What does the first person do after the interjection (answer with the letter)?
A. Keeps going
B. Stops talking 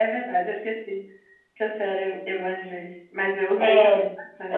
B